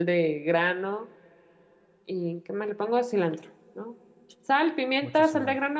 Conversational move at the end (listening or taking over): listening